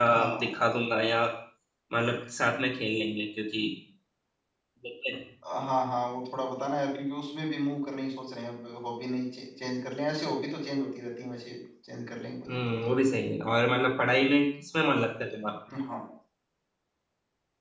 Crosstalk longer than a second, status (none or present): none